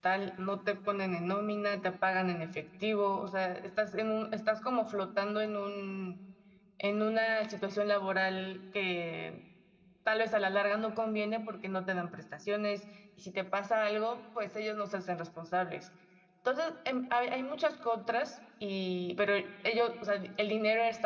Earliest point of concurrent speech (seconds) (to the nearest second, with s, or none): none